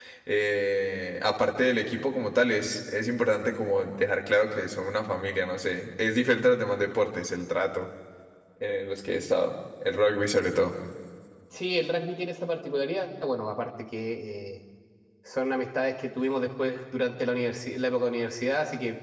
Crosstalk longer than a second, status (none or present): none